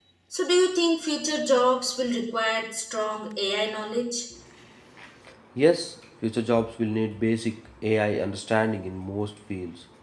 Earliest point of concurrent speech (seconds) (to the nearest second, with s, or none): none